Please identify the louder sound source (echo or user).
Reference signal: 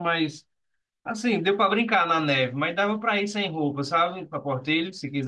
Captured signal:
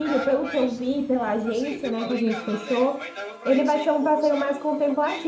user